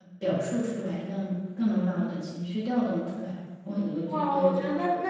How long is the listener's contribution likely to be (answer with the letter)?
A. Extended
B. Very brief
A